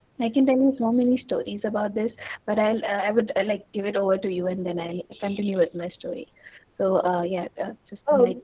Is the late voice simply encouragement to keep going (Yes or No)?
No